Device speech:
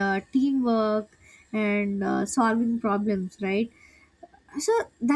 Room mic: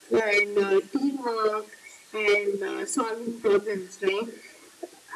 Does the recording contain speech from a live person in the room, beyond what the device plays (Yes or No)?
No